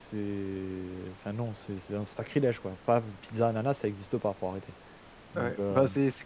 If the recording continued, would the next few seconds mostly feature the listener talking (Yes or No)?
Yes